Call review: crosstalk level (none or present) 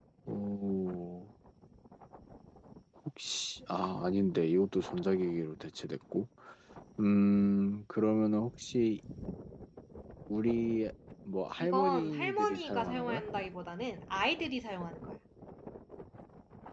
present